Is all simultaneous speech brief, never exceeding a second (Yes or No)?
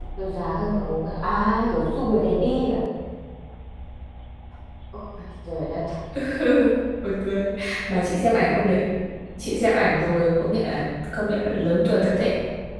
Yes